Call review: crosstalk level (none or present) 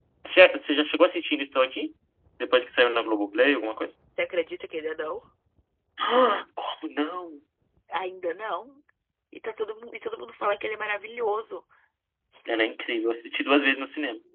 none